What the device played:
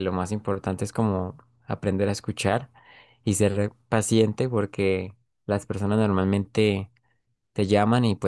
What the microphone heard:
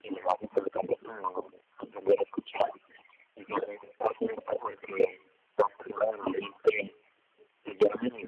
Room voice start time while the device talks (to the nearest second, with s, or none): none